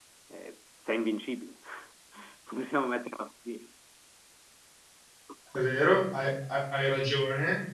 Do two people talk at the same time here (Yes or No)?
No